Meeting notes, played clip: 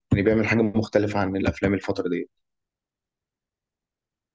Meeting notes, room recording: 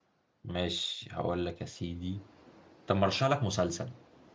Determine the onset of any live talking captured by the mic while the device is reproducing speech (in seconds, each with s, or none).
0.4 s